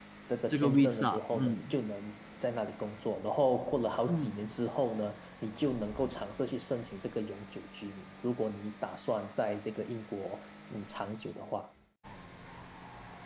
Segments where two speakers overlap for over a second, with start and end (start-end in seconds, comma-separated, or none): 0.5-1.7